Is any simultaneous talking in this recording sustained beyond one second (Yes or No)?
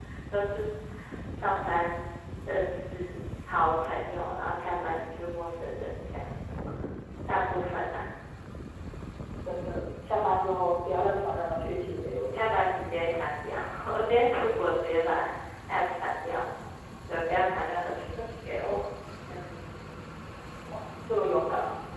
No